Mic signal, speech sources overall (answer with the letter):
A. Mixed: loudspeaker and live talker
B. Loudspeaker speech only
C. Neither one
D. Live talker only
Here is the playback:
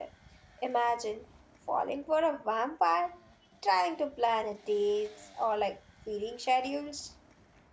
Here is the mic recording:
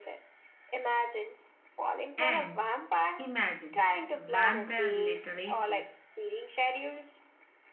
A